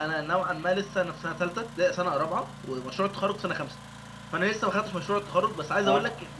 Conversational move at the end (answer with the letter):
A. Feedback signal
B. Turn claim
A